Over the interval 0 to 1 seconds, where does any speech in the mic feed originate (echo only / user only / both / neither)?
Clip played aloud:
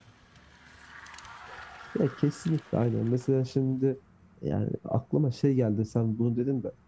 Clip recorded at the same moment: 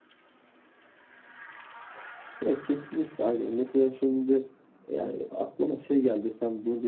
neither